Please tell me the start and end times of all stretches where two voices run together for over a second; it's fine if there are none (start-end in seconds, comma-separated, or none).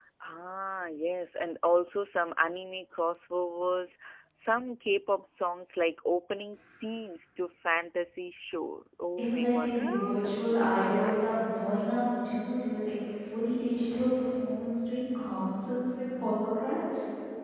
9.2-11.1